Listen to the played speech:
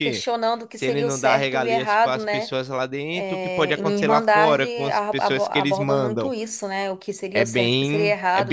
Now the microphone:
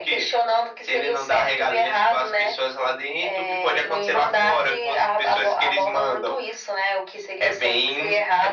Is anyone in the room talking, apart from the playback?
No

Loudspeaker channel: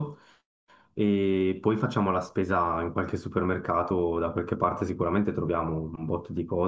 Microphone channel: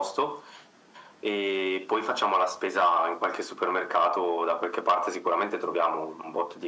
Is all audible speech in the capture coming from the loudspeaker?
Yes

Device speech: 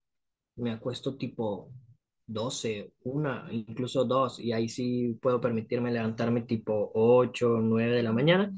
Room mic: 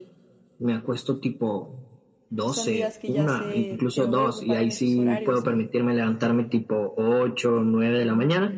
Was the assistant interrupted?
Yes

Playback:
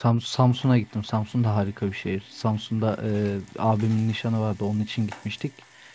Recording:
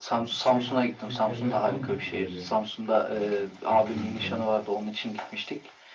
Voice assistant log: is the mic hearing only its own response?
No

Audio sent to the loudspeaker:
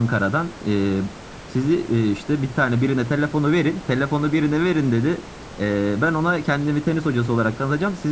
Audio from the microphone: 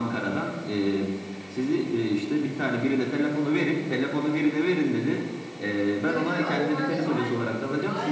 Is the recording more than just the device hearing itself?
Yes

